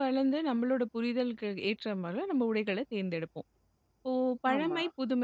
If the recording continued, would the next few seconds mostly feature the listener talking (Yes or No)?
No